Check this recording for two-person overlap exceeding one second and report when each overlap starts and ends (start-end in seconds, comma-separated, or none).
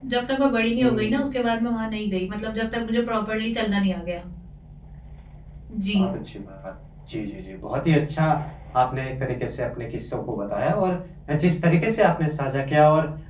none